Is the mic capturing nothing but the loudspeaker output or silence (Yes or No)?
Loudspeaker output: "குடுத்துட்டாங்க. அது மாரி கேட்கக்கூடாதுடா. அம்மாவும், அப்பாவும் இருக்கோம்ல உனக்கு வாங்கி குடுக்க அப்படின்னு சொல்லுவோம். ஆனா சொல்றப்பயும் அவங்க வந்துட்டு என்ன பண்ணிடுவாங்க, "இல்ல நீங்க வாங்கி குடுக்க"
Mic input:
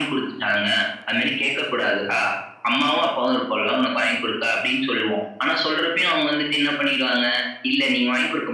Yes